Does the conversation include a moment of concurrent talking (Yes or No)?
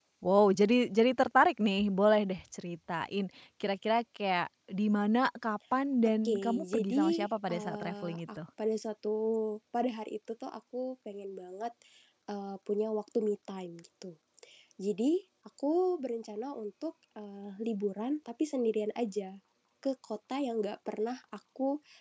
Yes